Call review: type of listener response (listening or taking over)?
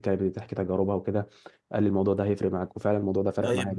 taking over